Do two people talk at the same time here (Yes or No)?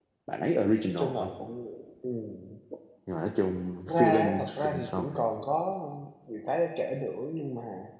Yes